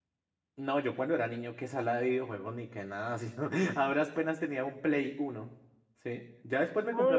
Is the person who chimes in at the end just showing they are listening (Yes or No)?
No